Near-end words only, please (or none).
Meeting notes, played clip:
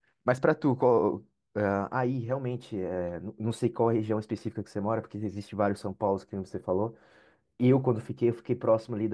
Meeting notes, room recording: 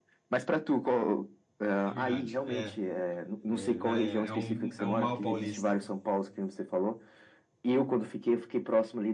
É verdade. É, é, né, é é um, é um mal paulista.